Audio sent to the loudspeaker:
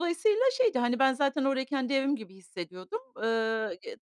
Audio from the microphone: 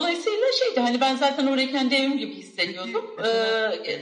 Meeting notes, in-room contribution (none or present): present